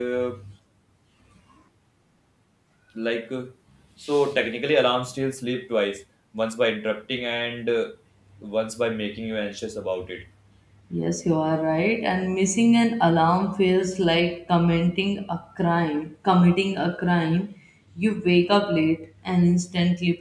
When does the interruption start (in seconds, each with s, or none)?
none